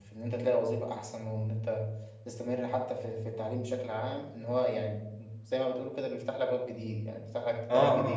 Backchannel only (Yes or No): No